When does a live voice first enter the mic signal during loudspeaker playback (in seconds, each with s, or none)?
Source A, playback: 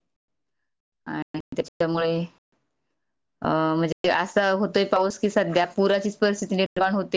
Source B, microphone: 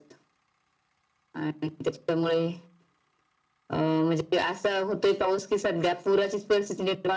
none